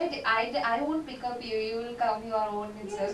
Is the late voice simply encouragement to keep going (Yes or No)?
No